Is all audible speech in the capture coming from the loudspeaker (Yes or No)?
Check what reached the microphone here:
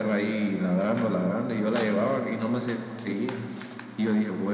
Yes